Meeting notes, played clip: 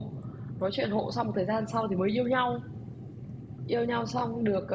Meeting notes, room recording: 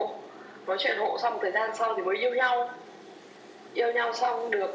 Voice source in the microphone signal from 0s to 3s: echo only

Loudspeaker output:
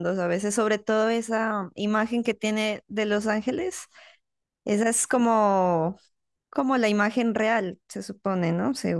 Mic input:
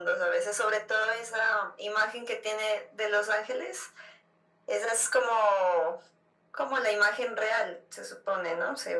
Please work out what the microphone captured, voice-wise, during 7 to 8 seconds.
echo only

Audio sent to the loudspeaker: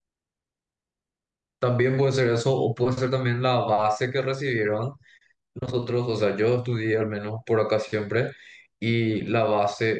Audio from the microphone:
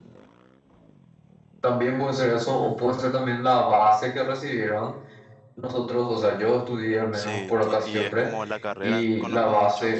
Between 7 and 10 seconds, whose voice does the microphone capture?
both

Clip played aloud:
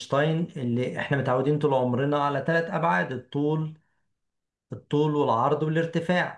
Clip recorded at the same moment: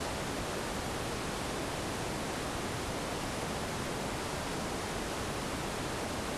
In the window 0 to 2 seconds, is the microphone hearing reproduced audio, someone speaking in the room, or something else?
neither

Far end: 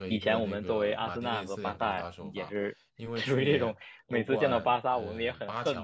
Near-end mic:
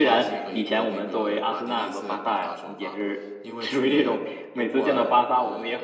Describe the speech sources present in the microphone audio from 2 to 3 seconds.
echo only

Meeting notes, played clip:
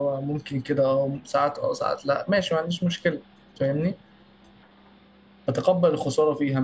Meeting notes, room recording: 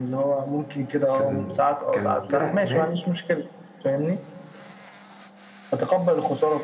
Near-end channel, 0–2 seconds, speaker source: both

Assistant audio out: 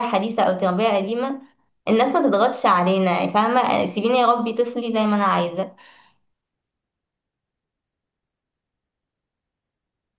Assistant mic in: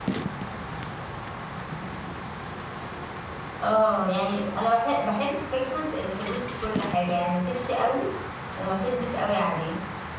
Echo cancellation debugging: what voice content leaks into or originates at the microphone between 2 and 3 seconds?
neither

